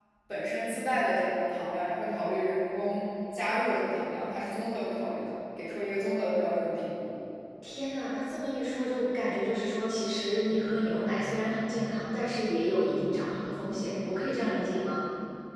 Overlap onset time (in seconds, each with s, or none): none